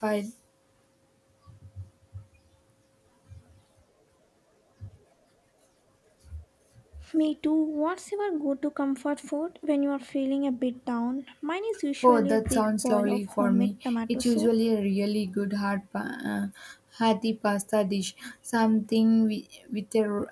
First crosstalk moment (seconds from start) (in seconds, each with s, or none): 12.0 s